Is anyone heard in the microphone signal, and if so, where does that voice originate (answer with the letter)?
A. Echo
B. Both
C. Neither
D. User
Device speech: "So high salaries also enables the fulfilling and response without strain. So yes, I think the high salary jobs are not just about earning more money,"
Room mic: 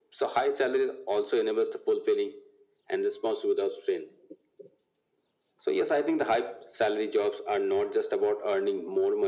A